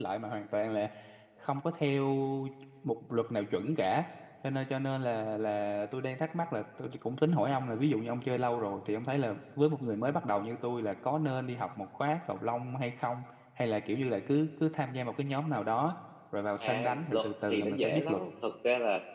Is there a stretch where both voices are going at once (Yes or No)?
Yes